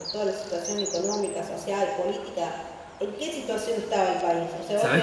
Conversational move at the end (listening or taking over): listening